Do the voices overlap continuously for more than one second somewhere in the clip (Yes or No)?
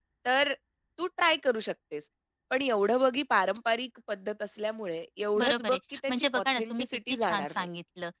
Yes